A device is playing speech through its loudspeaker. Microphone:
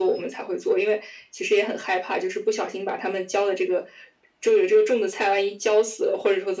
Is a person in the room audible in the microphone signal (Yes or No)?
No